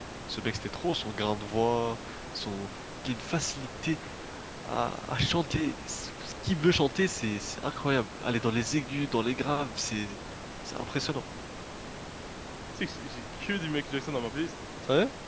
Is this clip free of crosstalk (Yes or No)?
Yes